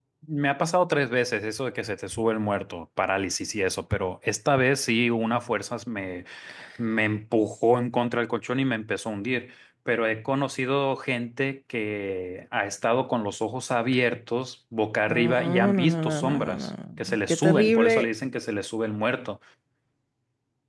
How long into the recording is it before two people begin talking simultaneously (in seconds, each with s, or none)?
15.1 s